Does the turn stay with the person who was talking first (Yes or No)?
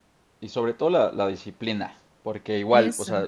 Yes